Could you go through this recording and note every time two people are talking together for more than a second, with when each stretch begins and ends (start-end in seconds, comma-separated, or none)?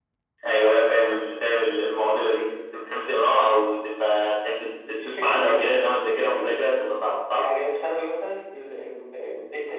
4.9-6.6